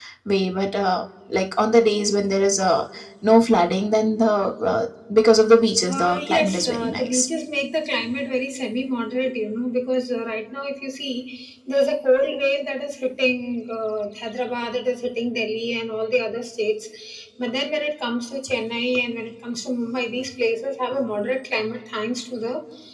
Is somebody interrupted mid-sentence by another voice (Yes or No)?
Yes